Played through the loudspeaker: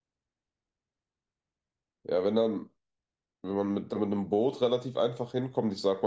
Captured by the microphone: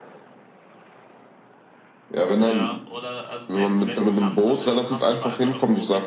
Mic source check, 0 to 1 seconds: neither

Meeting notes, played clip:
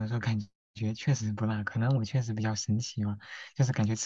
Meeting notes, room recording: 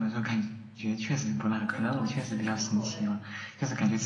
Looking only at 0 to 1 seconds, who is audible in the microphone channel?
echo only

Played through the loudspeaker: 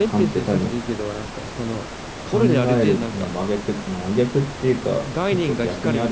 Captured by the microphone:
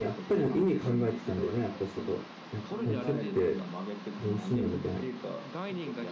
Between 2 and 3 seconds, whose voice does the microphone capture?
both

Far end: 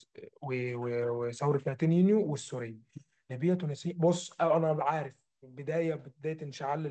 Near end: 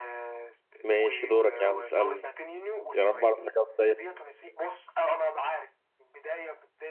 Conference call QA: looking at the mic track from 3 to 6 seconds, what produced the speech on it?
both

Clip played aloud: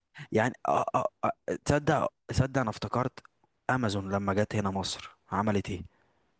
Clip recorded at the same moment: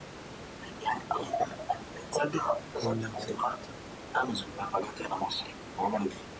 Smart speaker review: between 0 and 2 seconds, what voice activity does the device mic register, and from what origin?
echo only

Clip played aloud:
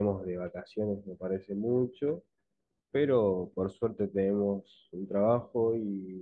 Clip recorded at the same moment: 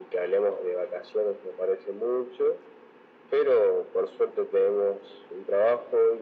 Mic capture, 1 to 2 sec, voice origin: echo only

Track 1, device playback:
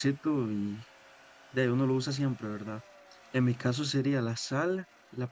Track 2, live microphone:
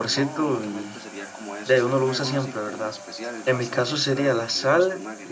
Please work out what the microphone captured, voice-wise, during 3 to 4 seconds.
both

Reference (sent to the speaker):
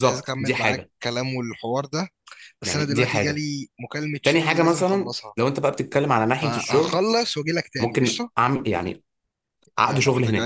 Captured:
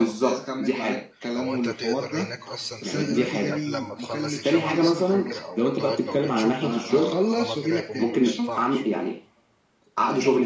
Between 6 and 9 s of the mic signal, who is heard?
both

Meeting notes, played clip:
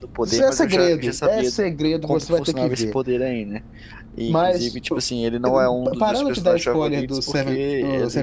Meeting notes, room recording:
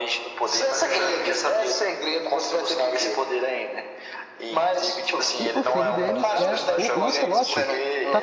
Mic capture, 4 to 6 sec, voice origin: both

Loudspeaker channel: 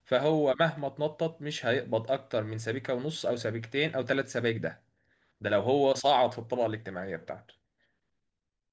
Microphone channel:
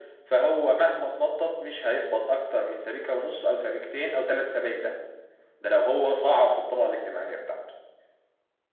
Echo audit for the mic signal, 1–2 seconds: echo only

